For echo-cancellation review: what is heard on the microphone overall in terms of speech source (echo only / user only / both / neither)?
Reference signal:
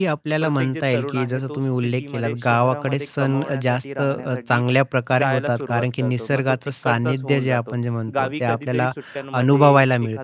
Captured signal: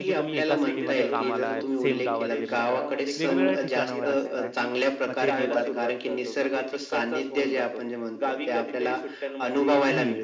both